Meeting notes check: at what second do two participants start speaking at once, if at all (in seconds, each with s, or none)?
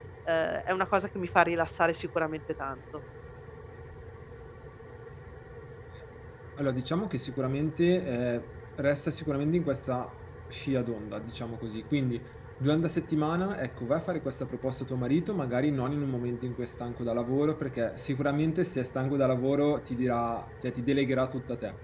none